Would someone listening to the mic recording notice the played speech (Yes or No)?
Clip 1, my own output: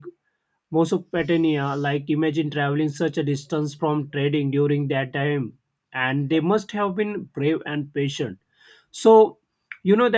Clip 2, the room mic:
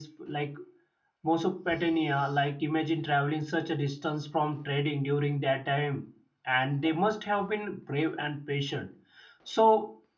Yes